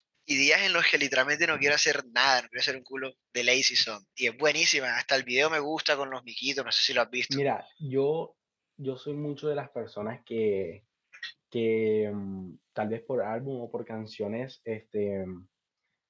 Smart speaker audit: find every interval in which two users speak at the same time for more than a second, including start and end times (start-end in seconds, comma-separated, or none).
none